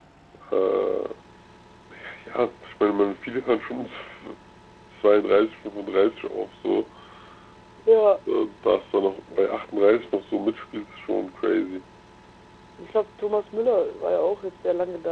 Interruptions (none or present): none